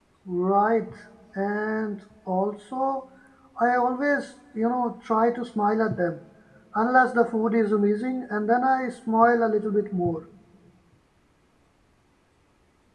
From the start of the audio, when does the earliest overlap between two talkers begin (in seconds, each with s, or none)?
none